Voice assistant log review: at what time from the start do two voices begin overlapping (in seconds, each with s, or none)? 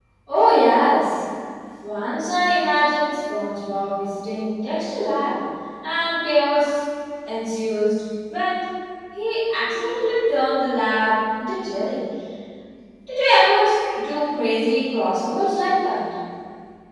none